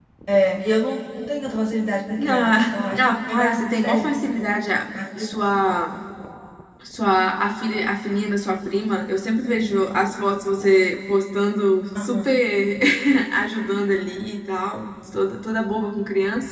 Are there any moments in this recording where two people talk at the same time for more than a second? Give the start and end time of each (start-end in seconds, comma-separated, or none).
2.3-4.2